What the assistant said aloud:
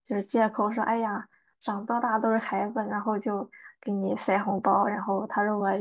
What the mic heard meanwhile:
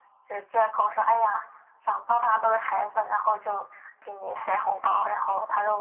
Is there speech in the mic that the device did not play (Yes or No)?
No